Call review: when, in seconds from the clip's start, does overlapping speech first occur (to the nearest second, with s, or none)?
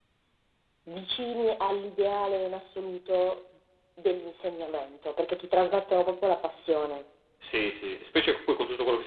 none